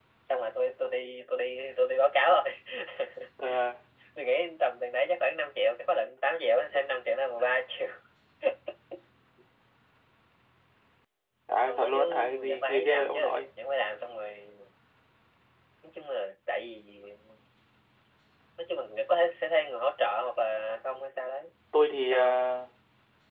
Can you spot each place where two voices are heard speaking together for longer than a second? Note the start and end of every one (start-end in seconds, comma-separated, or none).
11.7-13.5